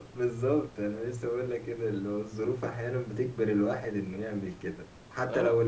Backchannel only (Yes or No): Yes